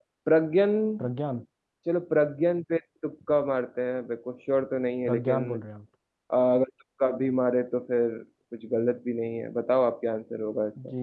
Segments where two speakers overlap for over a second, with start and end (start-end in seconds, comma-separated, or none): none